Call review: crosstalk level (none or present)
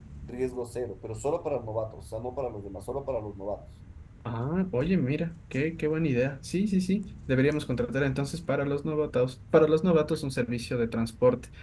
none